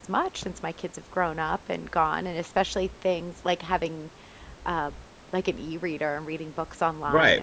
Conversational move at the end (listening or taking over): taking over